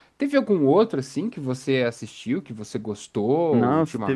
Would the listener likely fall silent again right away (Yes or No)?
No